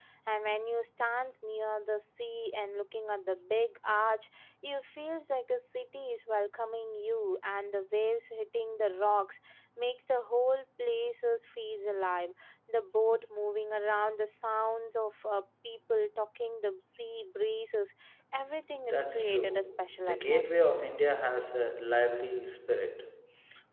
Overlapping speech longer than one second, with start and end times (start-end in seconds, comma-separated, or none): 18.8-20.8